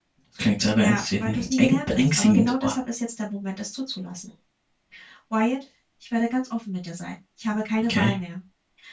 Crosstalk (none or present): present